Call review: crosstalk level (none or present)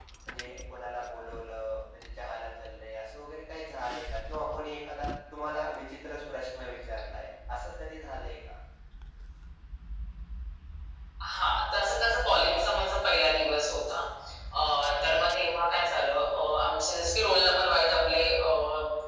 none